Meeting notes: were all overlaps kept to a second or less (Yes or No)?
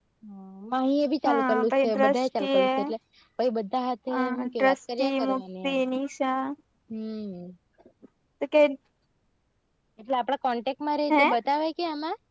No